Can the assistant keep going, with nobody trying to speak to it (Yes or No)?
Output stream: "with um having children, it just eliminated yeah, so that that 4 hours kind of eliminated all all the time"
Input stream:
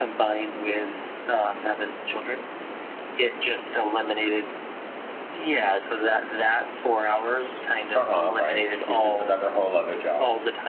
No